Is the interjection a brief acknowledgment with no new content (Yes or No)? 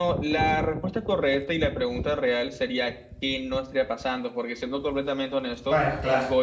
Yes